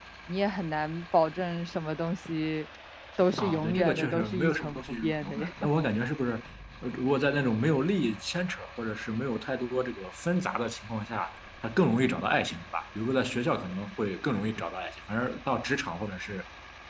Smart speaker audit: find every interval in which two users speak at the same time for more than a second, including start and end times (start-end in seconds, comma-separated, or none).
3.4-5.7